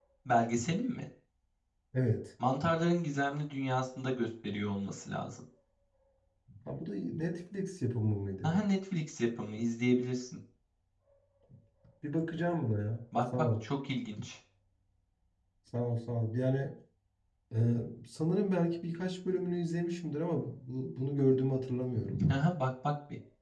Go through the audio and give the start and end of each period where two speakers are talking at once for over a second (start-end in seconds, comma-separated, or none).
none